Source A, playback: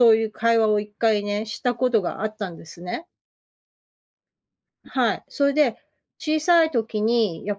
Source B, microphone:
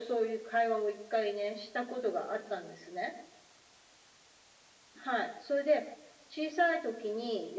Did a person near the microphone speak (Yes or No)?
No